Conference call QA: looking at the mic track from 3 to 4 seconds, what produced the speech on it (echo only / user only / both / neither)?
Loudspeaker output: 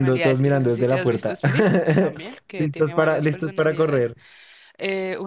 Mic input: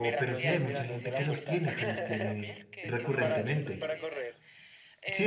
both